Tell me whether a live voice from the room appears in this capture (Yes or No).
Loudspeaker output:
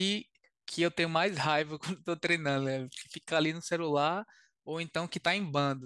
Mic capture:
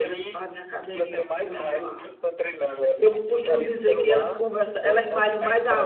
Yes